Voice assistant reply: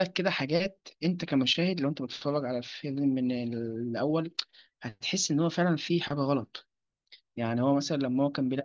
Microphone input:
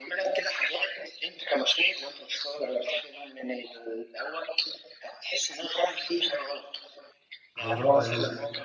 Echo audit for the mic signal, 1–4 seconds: echo only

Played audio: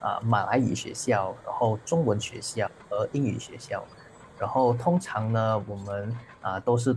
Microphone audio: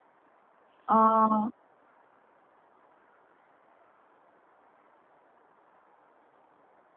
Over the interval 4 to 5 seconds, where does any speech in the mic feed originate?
neither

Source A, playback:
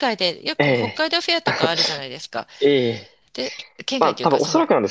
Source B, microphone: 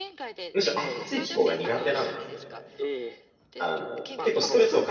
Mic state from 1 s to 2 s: both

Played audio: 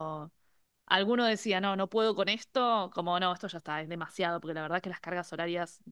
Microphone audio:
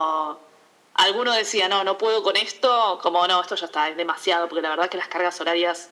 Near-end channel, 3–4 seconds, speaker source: echo only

